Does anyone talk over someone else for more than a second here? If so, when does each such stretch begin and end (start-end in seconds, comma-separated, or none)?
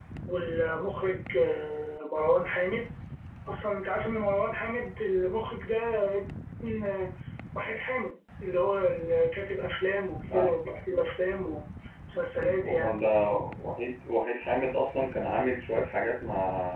none